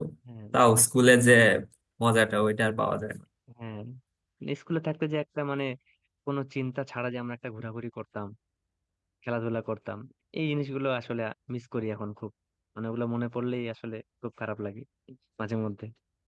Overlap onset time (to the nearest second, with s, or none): none